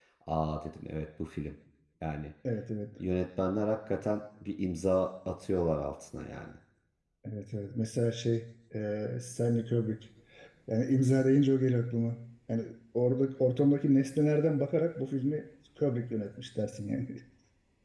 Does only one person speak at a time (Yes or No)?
Yes